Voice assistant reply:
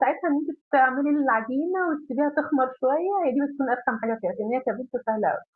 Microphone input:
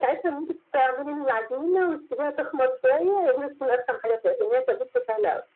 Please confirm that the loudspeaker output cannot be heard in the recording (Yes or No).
No